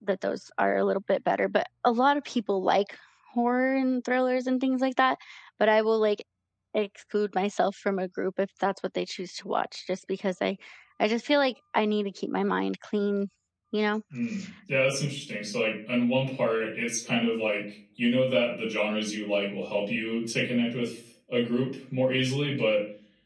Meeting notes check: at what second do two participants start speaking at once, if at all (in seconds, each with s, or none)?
none